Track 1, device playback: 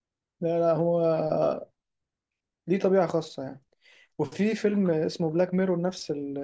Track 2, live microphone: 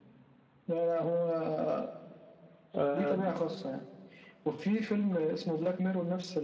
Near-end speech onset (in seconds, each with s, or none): 2.8 s